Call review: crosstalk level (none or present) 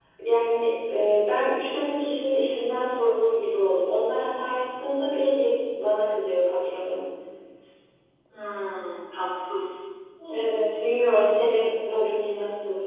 none